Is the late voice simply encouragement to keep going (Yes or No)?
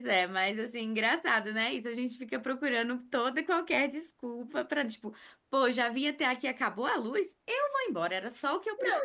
No